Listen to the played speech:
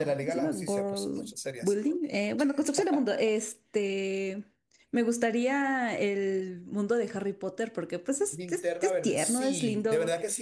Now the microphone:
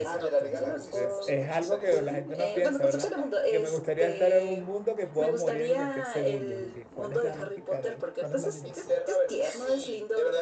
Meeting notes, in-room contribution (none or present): present